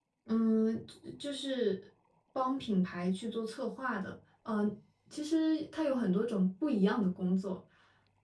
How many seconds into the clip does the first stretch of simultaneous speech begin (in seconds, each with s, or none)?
none